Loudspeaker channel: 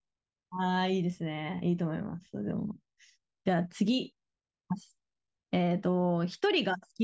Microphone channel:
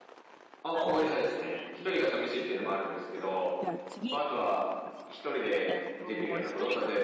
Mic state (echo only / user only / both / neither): both